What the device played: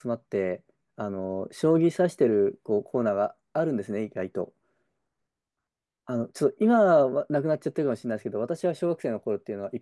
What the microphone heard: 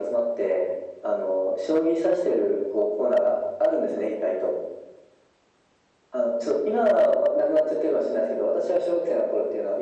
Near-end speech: none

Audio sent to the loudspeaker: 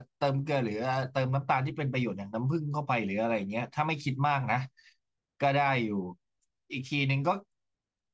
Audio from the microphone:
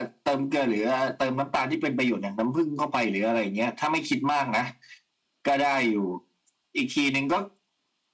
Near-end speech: none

